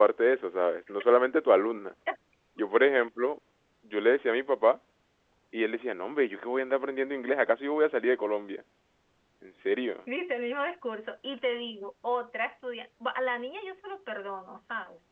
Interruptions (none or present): none